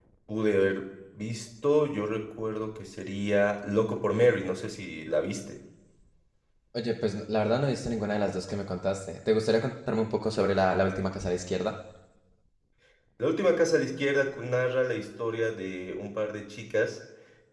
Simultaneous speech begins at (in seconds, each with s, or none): none